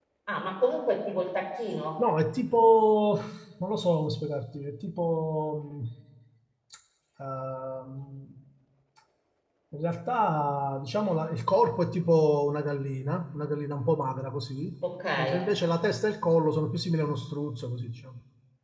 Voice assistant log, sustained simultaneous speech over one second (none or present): none